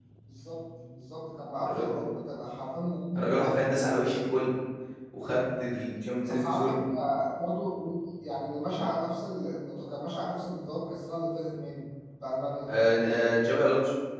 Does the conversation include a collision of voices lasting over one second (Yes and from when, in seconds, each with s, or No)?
No